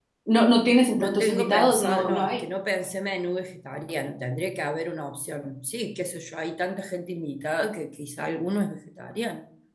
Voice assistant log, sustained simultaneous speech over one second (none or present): present